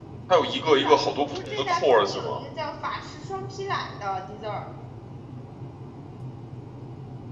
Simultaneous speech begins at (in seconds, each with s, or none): 0.6 s